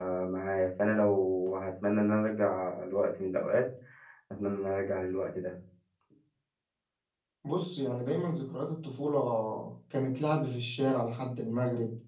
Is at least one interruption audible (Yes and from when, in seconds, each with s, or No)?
No